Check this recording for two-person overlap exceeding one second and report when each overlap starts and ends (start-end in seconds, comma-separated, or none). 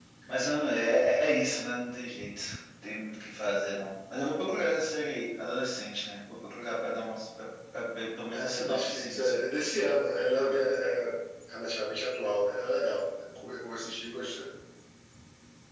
8.3-10.0